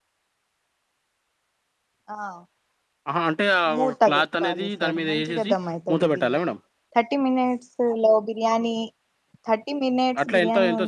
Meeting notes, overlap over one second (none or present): present